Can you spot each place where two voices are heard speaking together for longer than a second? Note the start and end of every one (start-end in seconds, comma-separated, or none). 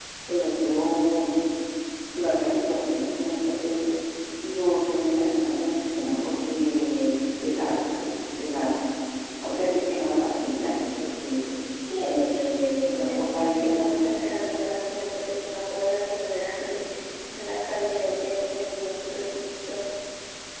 12.8-14.1